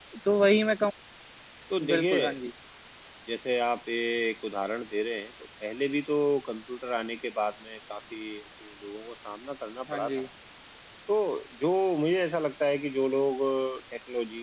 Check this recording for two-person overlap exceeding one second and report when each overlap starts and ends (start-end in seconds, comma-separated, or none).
none